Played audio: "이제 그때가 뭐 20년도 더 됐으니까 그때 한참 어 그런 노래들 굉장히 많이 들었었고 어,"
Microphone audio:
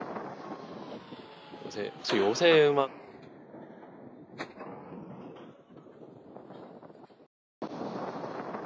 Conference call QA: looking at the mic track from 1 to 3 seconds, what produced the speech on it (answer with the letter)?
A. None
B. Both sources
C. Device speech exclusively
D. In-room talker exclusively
D